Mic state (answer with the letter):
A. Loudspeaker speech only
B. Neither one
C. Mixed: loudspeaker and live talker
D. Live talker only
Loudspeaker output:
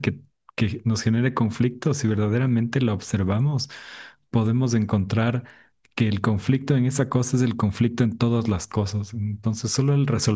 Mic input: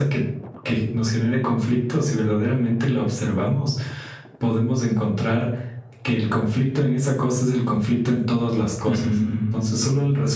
C